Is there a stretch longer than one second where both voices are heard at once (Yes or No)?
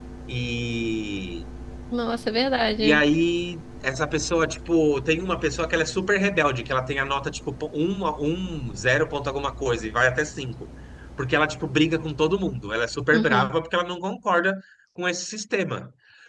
No